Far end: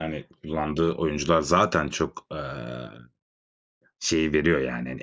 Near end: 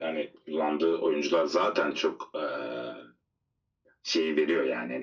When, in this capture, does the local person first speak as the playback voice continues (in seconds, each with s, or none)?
none